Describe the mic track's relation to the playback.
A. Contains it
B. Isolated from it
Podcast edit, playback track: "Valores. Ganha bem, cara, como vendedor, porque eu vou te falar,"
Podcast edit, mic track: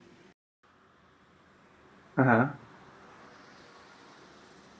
B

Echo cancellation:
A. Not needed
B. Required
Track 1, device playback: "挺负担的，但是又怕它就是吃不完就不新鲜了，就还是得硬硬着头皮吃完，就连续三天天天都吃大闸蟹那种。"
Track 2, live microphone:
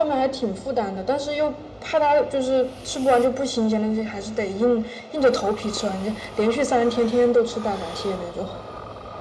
B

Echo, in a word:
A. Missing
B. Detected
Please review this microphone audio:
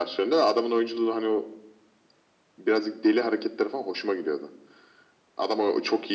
B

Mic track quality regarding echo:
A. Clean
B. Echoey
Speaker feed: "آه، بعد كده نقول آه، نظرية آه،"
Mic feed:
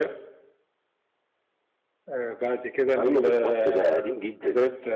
B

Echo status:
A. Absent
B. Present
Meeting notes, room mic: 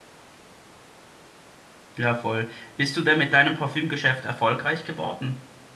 A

